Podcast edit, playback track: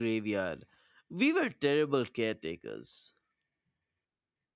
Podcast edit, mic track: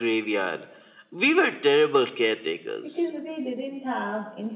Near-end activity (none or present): present